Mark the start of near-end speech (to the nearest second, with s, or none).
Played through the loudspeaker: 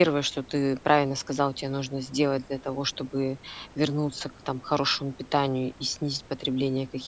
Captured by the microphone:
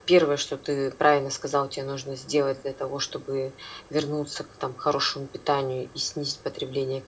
none